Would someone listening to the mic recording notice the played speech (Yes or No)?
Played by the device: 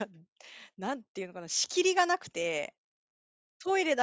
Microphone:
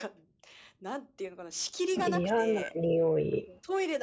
Yes